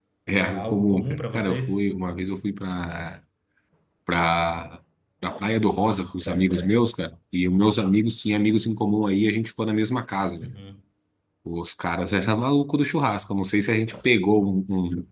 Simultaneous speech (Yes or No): Yes